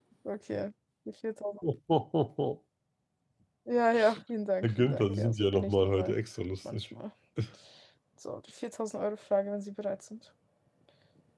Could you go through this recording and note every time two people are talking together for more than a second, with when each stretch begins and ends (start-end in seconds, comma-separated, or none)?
4.6-6.1